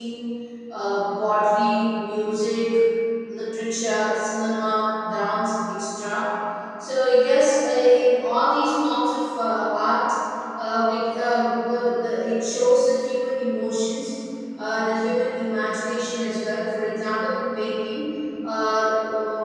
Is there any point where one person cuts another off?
No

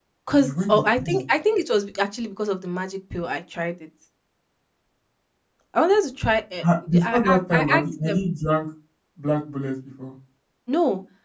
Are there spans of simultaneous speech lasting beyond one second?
Yes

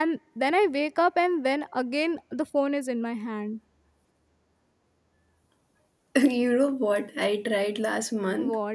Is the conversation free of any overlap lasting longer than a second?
Yes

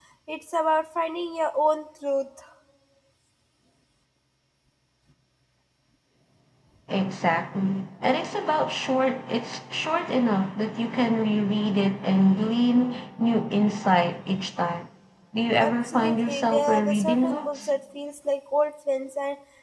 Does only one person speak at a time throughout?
No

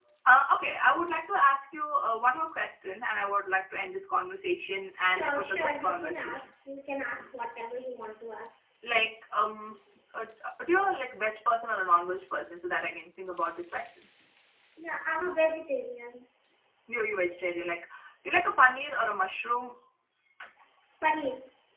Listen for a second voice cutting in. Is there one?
Yes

